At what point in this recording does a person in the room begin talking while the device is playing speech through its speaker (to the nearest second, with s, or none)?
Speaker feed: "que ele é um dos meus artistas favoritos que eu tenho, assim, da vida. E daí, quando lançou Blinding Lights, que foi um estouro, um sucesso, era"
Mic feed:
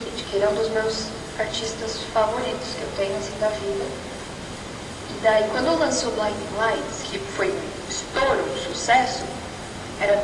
none